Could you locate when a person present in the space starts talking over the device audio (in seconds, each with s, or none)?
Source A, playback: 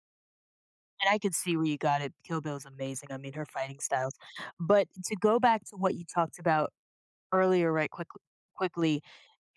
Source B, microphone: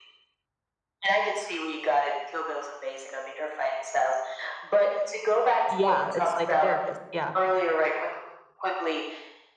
5.6 s